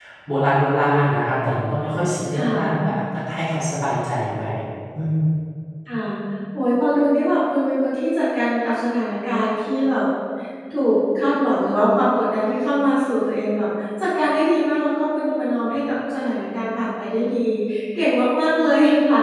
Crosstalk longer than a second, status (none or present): none